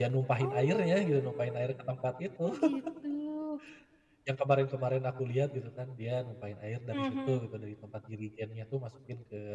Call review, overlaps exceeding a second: present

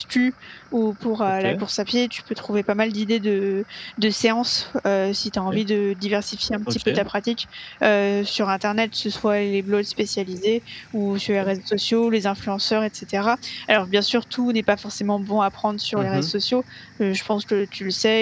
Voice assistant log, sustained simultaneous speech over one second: none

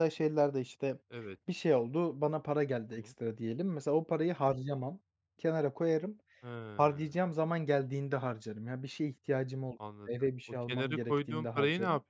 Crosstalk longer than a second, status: present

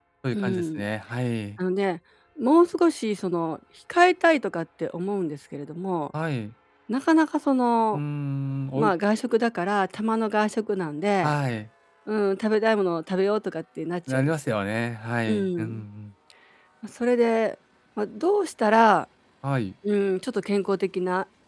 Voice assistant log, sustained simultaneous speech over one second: none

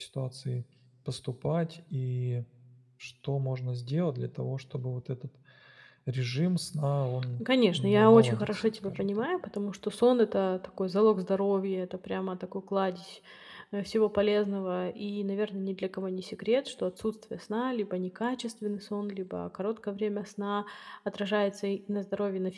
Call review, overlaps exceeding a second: present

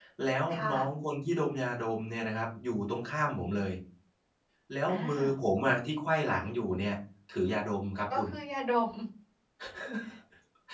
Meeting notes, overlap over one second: none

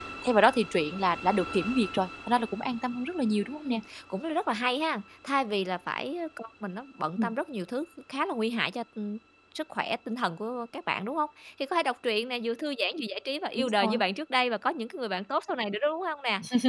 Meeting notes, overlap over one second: none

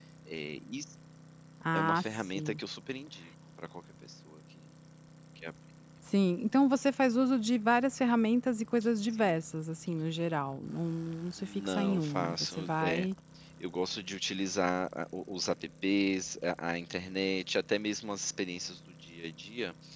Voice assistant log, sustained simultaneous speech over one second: present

